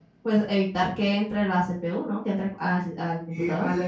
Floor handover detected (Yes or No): Yes